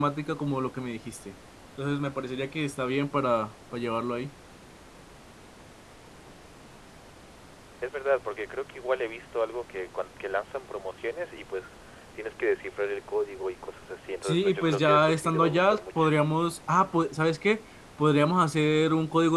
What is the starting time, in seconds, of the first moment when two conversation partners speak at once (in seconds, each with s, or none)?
14.2 s